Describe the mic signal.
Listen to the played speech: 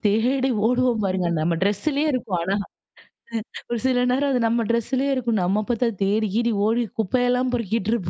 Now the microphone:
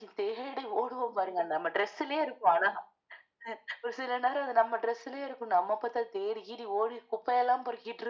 echo only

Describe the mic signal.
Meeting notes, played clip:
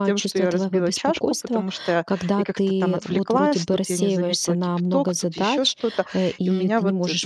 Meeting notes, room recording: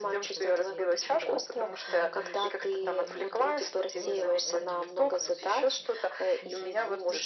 both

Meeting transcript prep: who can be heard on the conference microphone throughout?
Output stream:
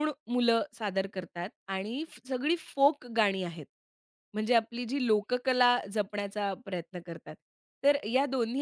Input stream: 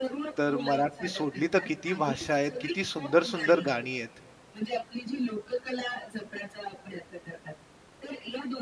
both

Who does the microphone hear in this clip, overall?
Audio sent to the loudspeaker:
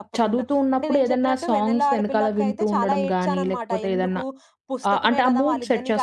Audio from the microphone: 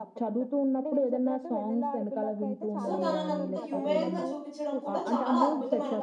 both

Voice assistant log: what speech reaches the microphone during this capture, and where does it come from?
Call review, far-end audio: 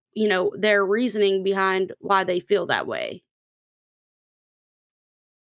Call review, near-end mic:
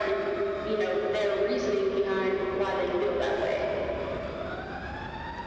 echo only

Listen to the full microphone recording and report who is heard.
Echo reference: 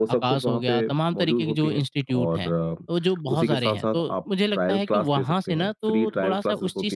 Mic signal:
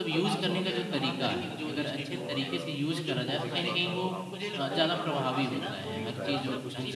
both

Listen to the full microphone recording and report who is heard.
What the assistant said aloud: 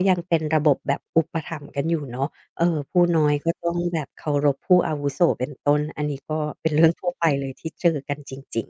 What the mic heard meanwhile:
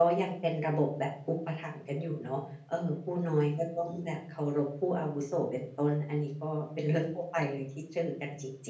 echo only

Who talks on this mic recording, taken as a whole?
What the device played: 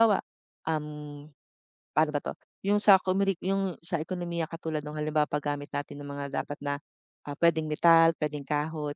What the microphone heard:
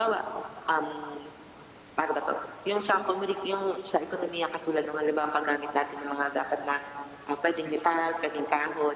echo only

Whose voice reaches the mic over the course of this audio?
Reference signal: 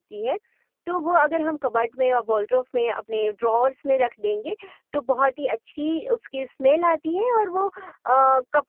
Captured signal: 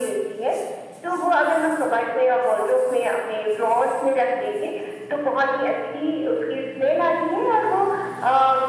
echo only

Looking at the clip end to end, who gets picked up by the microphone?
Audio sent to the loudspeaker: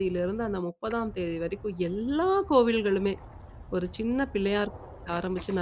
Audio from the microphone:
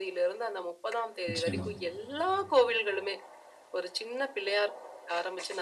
both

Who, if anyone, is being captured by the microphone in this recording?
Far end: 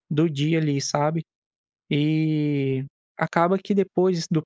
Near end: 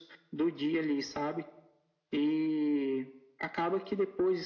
echo only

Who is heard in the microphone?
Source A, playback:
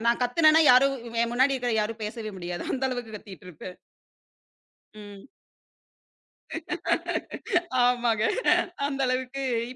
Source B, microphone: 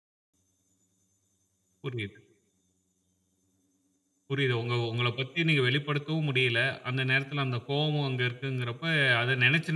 user only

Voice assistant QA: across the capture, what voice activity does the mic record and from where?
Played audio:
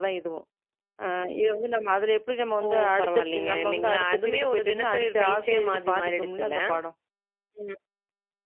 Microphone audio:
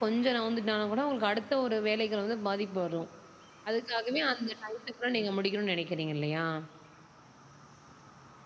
user only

